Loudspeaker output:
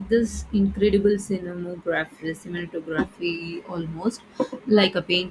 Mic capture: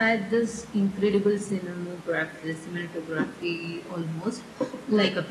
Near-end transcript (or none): none